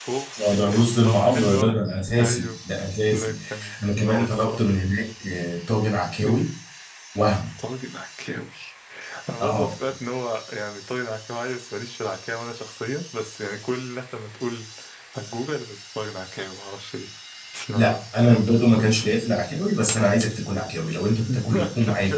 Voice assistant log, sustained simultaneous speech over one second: present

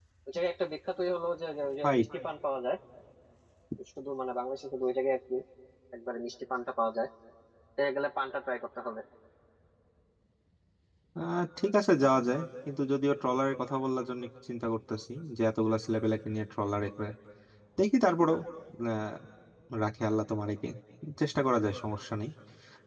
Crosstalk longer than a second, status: none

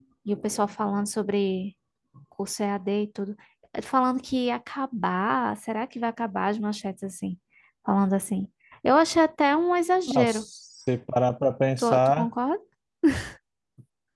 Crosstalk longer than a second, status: none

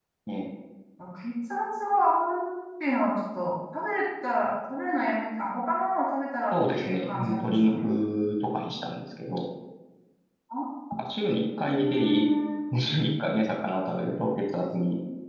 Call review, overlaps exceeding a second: present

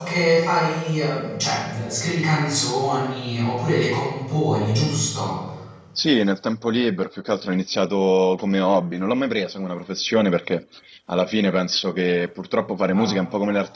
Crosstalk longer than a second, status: none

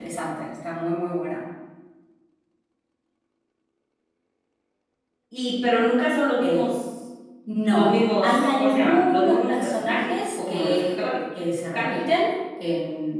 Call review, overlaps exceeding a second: present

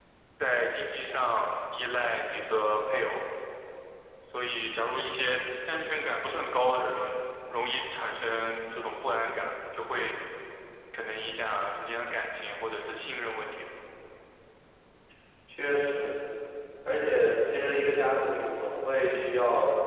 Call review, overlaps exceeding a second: none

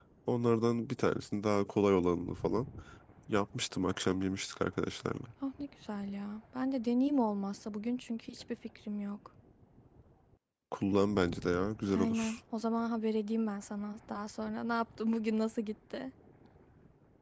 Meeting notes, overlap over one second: none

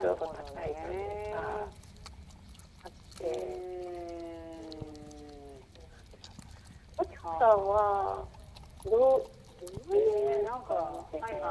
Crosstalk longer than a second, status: present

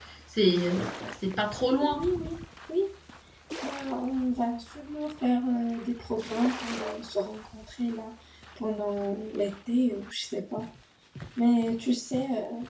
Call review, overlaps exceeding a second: none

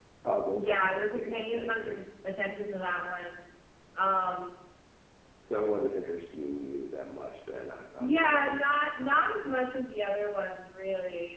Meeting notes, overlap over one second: present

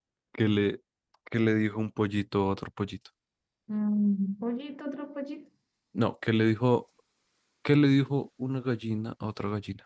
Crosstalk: none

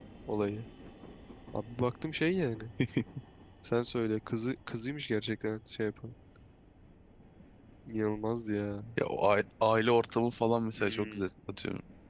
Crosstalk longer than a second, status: none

